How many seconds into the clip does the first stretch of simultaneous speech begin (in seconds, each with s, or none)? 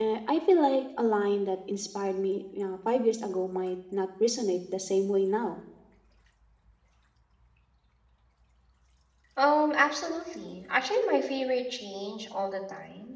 none